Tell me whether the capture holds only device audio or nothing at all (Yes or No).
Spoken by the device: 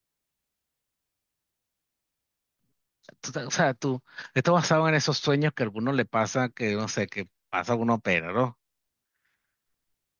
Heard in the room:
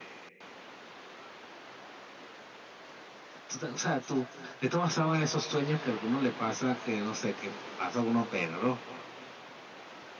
Yes